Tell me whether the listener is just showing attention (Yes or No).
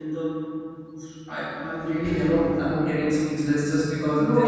No